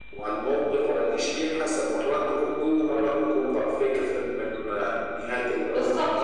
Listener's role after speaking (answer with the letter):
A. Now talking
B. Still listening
A